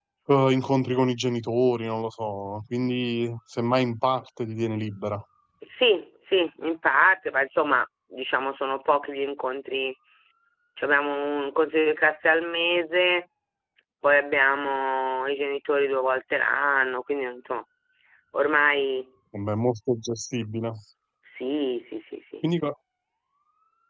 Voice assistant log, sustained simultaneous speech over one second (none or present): none